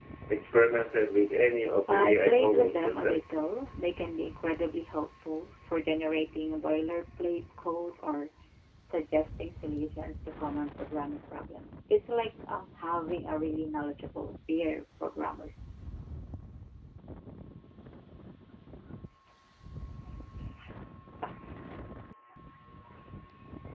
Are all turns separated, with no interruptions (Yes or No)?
No